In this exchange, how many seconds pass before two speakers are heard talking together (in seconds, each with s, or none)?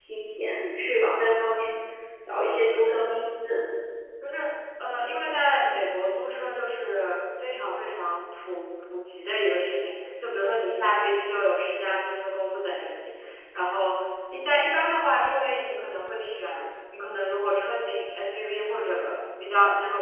none